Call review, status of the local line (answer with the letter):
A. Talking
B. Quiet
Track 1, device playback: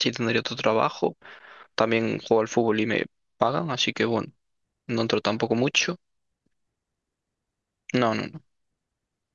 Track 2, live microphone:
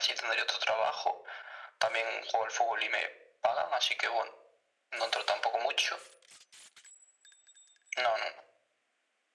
B